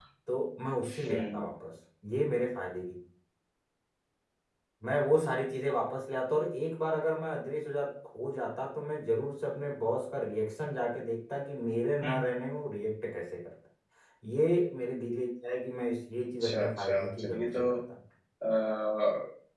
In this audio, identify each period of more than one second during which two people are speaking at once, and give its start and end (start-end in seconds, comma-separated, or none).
16.4-17.6